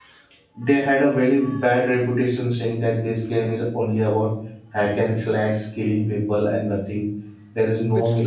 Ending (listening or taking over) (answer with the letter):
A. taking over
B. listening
A